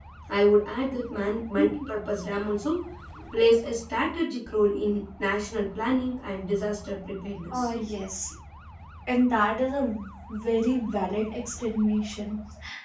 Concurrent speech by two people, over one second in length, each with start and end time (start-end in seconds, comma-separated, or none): none